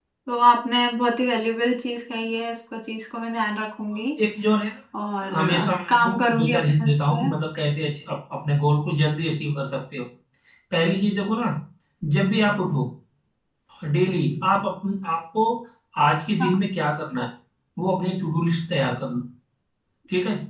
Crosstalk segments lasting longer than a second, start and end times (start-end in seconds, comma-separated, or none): 5.2-7.2